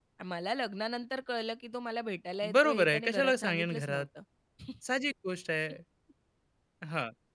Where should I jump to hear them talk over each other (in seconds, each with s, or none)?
2.4 s